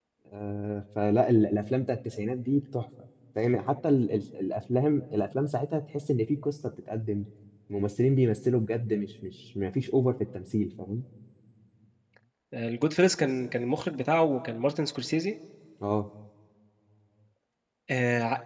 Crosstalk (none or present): none